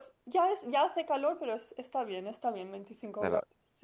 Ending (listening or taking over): taking over